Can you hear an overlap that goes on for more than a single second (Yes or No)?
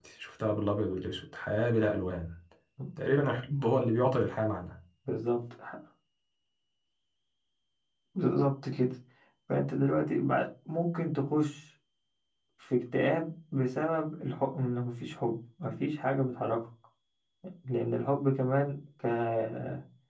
No